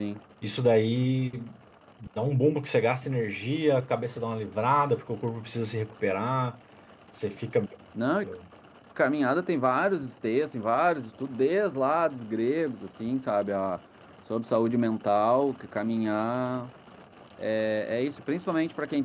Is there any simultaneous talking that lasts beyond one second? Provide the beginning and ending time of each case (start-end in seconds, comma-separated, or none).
none